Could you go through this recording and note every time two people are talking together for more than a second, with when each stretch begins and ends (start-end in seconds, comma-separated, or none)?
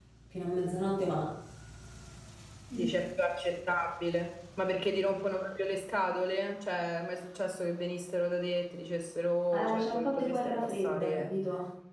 9.5-11.3